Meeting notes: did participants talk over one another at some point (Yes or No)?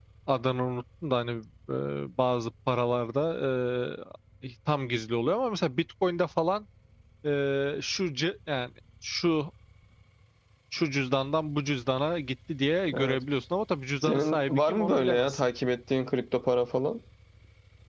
Yes